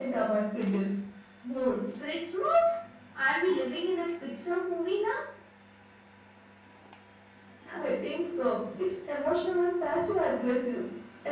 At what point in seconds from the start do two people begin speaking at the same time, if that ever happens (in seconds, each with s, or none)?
none